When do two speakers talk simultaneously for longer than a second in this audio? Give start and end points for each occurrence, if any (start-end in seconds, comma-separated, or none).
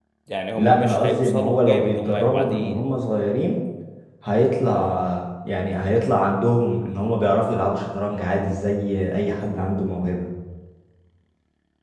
0.6-2.8